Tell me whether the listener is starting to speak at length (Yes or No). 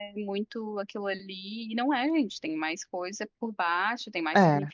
No